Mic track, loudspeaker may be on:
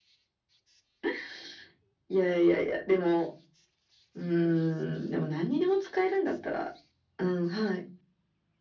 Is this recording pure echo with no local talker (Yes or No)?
Yes